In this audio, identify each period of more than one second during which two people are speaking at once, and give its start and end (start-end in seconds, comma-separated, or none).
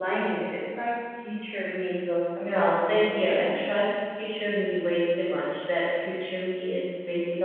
2.4-3.7